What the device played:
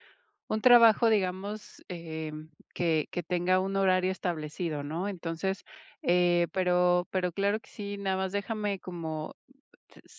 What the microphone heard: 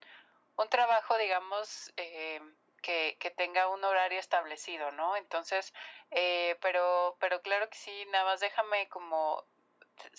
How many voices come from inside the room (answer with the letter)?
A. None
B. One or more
A